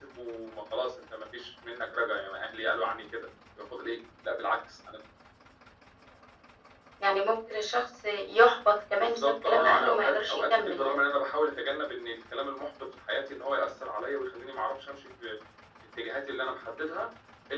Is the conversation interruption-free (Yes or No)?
No